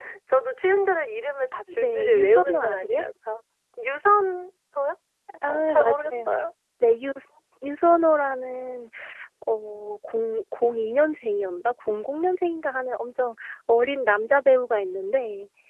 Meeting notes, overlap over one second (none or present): present